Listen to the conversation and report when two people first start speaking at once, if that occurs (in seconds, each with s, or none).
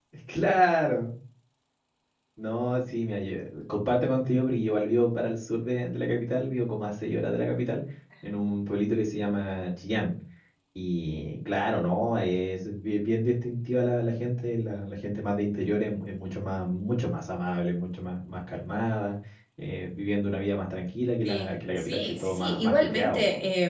21.2 s